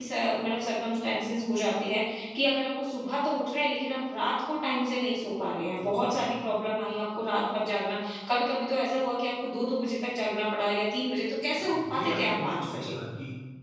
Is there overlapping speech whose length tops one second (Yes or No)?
Yes